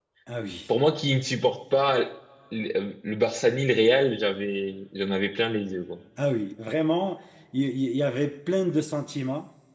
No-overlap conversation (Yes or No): Yes